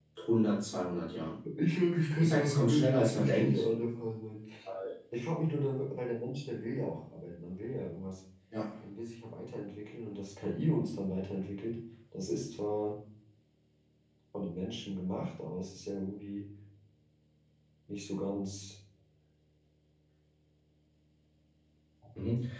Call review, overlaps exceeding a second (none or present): present